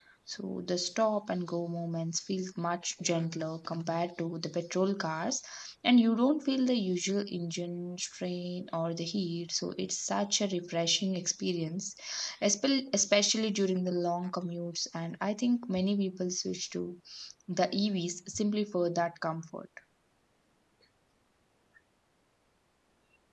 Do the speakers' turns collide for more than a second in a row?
No

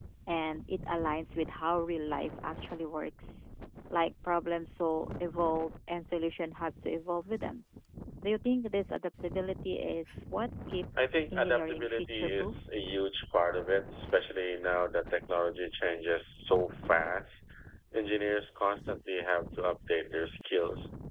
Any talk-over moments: Yes, from 11.0 s

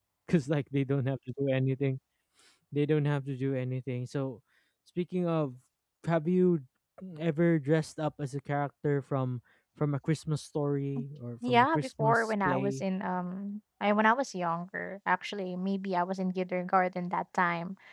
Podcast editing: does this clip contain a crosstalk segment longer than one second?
Yes, from 11.5 s

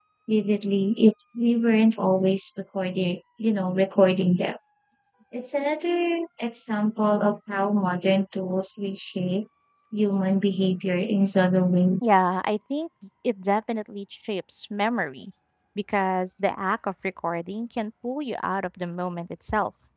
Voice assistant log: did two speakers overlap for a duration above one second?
No

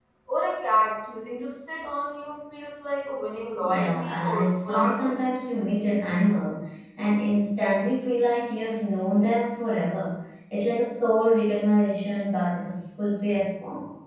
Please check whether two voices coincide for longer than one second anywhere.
Yes, from 3.6 s

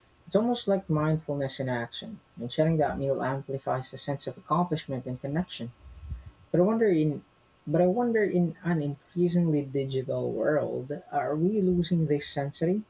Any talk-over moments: No

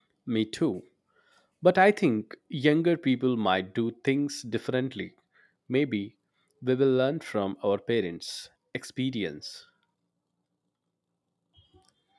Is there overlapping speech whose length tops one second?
No

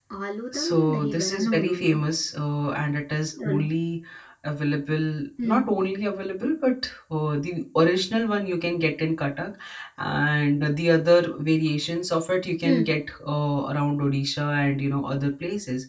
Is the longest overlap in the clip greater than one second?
Yes, from 0.5 s

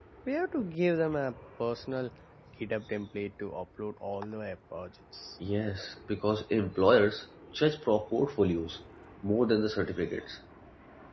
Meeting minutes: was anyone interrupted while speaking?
No

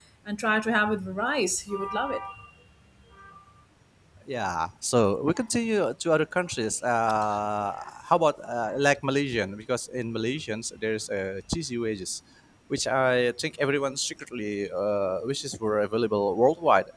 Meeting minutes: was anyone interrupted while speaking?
No

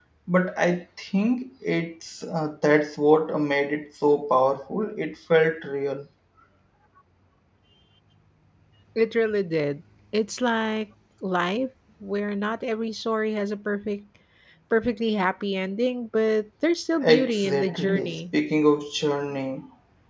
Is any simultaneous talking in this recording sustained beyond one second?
Yes, from 17.0 s

